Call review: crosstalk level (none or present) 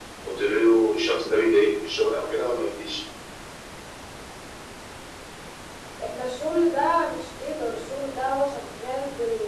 none